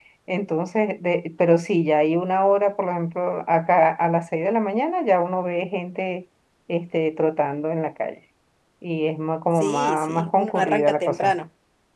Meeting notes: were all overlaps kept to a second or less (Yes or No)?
No